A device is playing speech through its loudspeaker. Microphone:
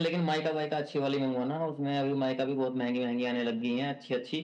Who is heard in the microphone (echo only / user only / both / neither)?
echo only